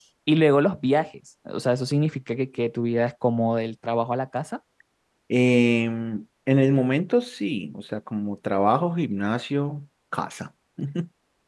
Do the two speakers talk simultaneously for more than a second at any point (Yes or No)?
No